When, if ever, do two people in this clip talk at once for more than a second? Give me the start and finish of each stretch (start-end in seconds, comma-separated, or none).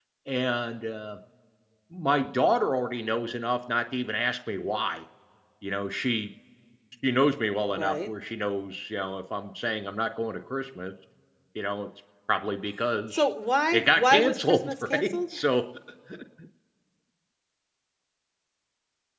13.7-15.2